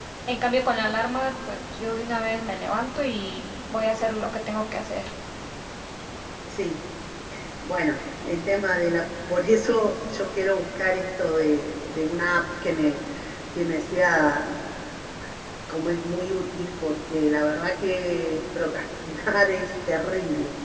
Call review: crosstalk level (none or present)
none